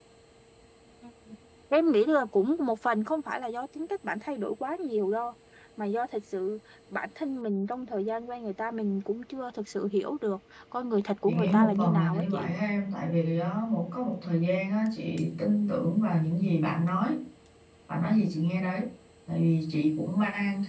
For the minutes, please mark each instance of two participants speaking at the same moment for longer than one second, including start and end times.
11.3-12.5

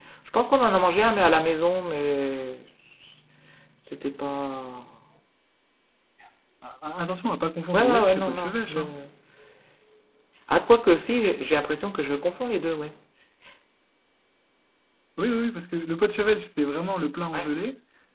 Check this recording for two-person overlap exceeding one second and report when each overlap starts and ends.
7.7-8.9

